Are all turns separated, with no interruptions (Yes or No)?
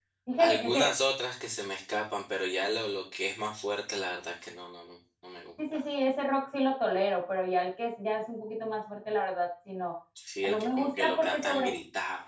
No